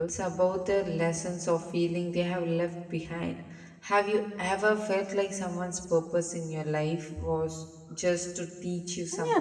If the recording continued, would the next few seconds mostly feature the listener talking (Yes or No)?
Yes